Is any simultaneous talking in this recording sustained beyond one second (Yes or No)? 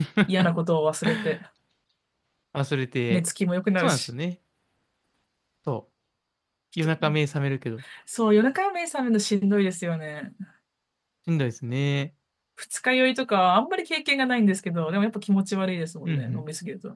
No